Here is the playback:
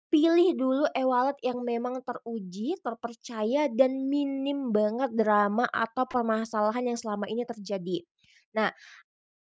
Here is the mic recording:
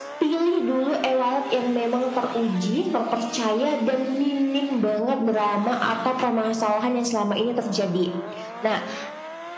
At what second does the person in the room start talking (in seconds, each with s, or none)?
none